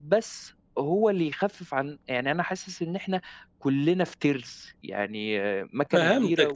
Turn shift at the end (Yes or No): Yes